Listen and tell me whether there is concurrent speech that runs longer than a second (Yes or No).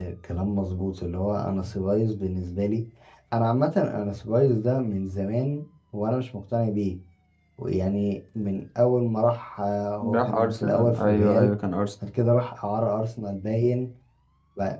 Yes